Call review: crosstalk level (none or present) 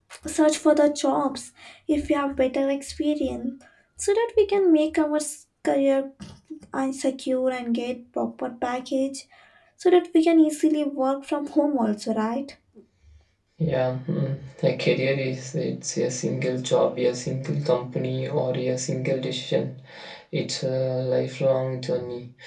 none